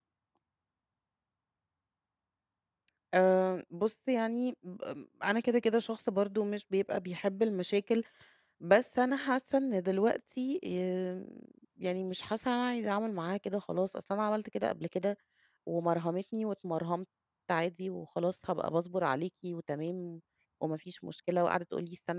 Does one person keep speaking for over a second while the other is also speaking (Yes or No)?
No